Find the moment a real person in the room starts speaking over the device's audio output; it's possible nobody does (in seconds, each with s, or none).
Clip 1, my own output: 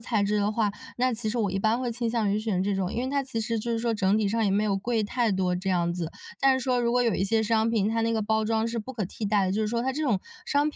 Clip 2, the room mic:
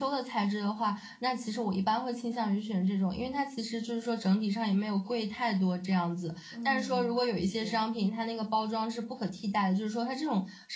6.5 s